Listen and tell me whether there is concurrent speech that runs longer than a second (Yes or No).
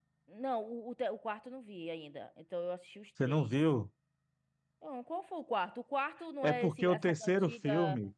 Yes